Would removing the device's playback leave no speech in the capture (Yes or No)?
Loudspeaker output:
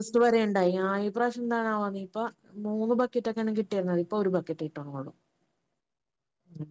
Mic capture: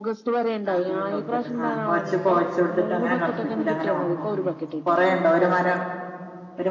No